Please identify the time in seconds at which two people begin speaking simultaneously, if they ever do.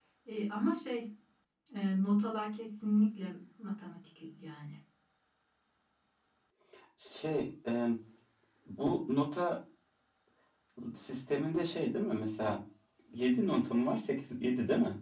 none

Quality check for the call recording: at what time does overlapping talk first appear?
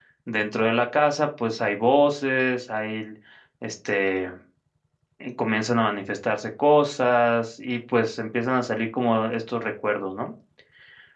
none

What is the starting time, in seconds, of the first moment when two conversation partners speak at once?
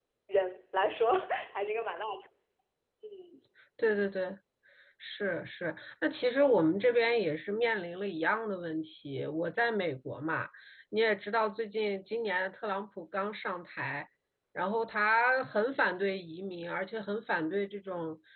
none

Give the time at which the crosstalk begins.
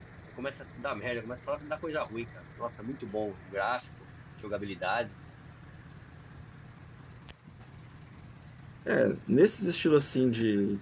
none

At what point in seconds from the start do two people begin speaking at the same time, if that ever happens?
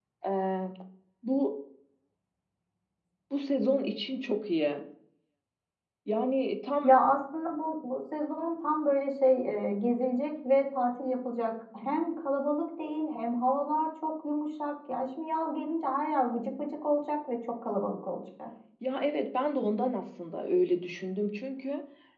none

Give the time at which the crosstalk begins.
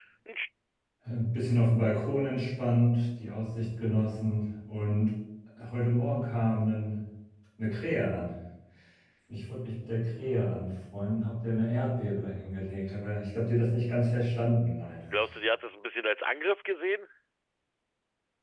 none

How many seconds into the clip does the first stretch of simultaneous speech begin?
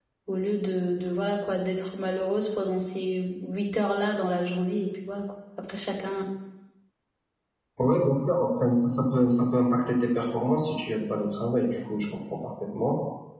none

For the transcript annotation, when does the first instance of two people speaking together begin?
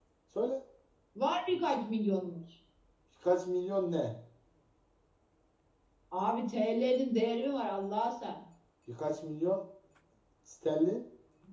none

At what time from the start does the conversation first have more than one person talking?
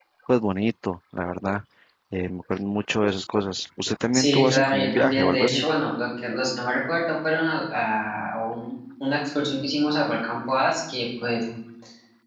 4.1 s

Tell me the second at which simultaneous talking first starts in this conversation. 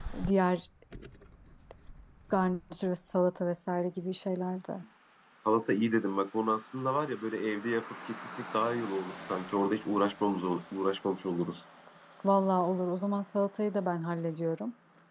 none

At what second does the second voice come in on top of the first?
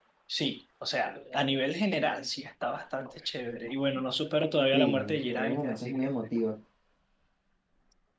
4.7 s

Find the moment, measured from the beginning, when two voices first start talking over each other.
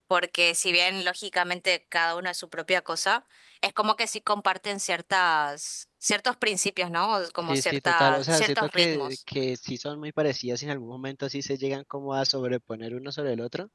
7.4 s

